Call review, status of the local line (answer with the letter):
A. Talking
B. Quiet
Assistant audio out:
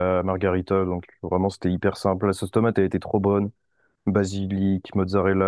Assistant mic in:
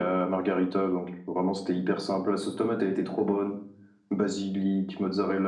B